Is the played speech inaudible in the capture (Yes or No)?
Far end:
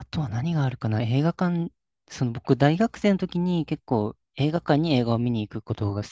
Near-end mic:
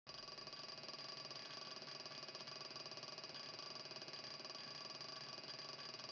Yes